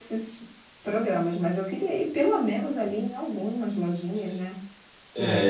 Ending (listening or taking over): taking over